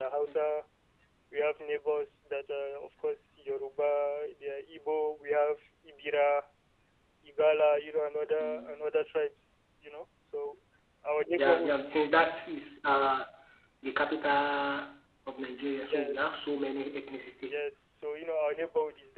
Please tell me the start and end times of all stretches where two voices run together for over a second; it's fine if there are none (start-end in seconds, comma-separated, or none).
none